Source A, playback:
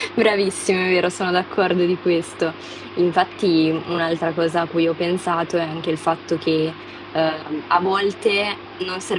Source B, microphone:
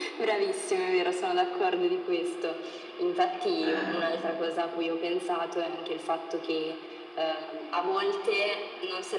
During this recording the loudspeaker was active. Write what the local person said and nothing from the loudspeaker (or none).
Ehm,